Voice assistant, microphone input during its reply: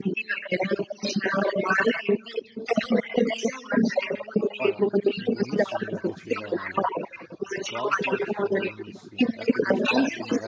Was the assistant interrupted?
Yes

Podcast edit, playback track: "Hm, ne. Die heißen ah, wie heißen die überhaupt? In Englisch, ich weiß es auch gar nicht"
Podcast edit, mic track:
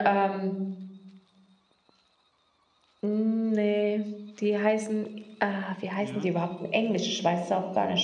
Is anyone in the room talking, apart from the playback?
Yes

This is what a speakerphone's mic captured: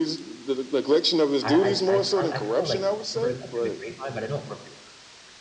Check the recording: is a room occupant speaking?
Yes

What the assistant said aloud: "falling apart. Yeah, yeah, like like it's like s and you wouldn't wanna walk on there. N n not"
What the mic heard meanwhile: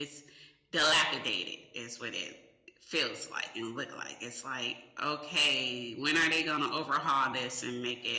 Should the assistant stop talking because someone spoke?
Yes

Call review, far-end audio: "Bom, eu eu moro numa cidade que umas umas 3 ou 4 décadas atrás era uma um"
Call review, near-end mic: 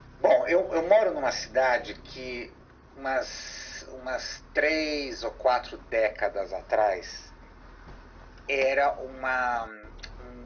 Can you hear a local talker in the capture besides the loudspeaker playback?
No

